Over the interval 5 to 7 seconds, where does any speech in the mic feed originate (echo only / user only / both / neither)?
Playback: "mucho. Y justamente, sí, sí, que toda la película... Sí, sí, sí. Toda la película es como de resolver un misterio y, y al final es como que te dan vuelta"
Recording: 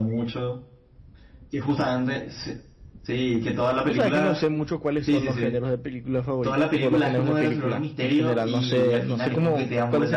both